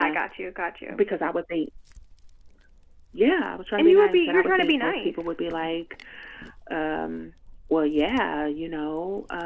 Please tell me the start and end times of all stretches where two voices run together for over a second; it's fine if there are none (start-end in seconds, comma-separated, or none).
3.8-5.3